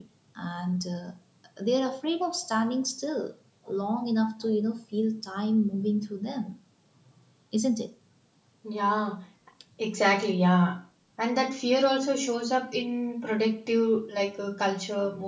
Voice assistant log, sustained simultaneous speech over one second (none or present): none